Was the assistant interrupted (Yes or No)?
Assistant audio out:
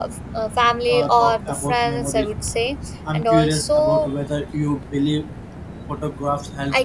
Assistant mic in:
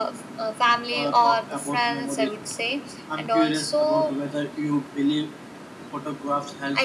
No